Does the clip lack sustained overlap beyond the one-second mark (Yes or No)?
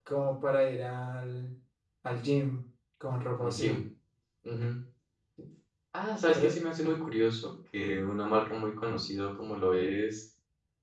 Yes